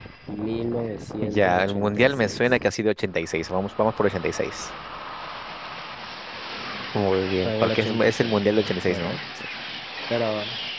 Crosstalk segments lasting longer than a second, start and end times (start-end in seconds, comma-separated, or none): 1.2-2.4, 7.5-9.2